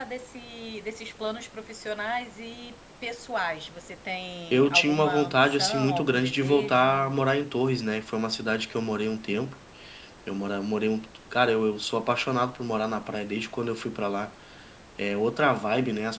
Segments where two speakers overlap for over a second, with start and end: 4.5-6.9

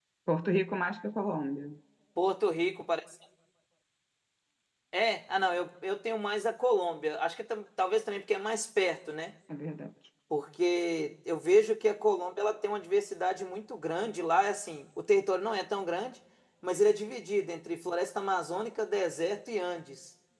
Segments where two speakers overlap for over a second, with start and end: none

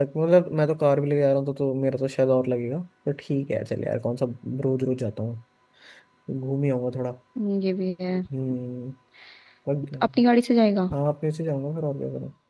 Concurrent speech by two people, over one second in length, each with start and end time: none

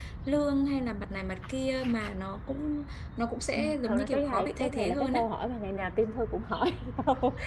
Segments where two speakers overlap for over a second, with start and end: 3.6-5.3

